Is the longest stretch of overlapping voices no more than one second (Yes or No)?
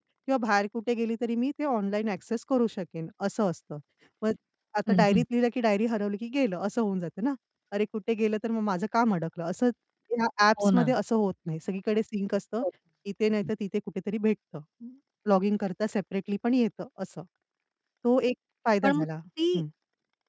Yes